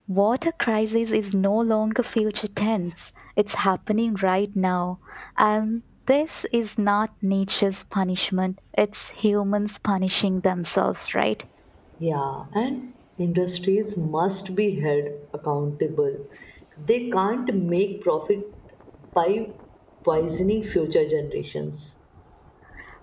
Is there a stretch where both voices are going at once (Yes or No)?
No